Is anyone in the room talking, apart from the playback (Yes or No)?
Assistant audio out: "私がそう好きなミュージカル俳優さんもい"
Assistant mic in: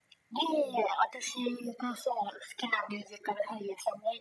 No